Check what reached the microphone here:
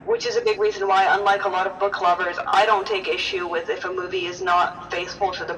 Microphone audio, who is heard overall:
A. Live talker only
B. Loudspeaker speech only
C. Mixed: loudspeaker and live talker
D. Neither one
B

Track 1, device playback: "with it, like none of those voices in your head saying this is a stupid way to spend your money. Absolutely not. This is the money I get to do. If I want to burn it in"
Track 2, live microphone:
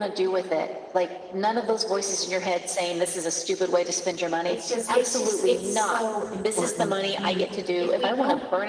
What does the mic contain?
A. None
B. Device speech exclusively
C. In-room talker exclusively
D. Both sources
D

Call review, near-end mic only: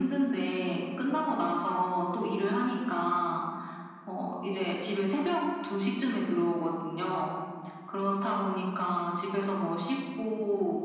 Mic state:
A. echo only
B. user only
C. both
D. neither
A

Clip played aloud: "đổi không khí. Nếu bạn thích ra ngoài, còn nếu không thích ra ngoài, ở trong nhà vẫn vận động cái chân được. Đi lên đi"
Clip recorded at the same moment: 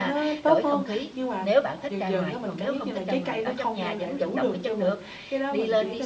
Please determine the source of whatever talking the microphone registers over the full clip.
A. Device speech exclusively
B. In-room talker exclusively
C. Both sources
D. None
C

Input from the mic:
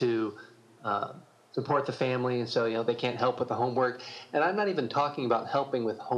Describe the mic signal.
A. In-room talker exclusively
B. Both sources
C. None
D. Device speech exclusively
D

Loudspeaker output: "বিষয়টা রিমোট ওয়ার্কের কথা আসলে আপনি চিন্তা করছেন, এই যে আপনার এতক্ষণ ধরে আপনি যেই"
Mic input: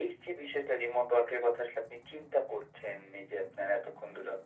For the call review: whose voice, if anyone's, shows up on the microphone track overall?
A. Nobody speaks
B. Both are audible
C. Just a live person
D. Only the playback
D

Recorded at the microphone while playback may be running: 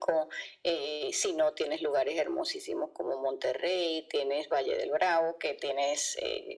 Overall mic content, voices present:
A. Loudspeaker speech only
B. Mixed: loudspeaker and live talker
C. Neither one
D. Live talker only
A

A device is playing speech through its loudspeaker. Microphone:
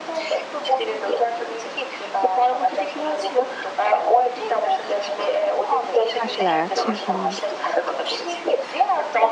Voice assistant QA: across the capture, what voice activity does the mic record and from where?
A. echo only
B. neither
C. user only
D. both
D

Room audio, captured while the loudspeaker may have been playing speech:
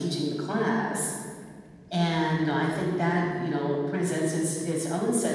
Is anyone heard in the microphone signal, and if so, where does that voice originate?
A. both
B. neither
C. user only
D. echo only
A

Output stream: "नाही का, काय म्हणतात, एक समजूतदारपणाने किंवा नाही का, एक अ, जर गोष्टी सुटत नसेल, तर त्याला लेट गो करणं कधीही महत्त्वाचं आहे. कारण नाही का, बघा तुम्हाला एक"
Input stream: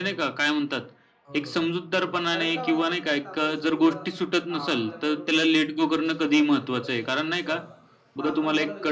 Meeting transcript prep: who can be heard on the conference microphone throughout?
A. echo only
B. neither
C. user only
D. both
D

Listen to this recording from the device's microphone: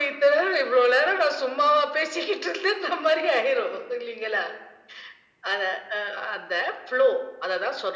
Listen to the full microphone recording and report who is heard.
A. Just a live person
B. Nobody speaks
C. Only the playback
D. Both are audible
C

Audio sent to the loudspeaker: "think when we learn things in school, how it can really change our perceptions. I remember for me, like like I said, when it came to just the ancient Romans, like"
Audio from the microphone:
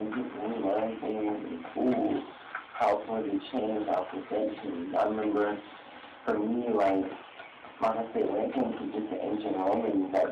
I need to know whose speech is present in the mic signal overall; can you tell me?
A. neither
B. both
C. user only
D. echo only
D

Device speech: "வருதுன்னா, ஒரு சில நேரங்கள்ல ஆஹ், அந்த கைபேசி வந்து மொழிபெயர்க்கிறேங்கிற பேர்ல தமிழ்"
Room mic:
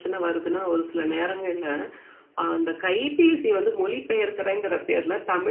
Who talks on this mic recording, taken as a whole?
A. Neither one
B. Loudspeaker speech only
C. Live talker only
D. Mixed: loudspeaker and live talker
B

